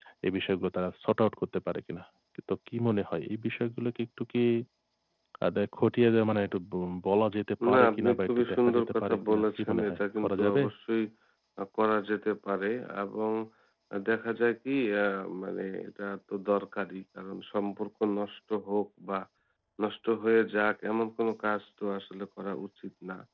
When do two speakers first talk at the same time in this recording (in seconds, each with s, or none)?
7.6 s